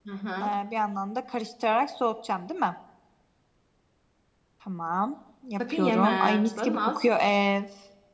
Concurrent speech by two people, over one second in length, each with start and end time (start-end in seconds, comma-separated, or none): 5.6-7.0